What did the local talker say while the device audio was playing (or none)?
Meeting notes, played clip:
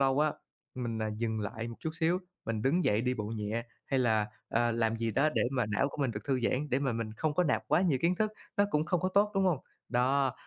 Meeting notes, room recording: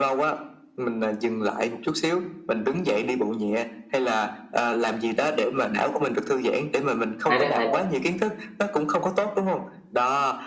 hay đấy, hay đấy.